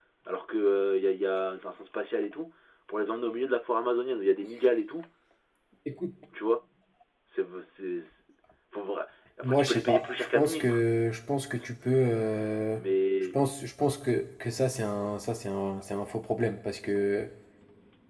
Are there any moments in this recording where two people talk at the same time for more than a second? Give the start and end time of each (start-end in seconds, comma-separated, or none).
9.4-10.8